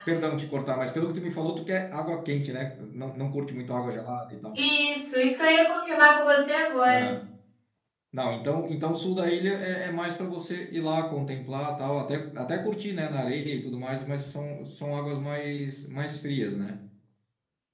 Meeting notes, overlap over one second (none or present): none